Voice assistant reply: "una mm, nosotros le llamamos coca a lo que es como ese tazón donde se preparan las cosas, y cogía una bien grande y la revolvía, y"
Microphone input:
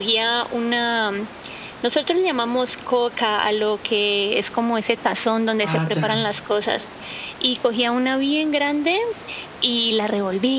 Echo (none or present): present